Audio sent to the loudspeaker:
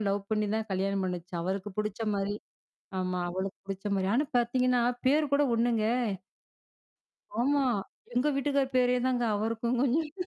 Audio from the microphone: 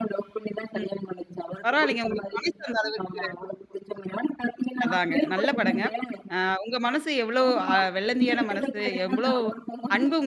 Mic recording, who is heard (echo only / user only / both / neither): both